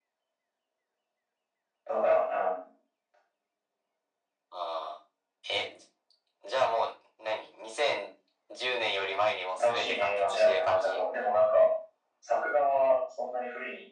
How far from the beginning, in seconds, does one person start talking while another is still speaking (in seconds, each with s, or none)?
9.5 s